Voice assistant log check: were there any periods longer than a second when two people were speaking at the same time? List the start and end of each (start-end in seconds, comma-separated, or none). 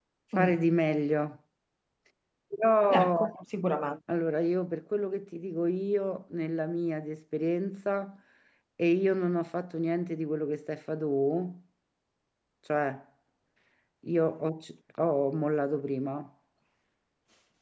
none